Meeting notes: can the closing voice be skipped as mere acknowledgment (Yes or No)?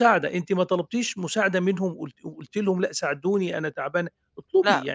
No